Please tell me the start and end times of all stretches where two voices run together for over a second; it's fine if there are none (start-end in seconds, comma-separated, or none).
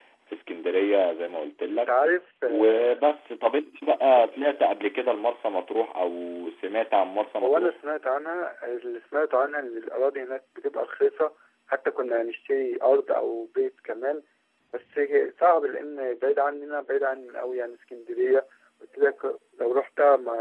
none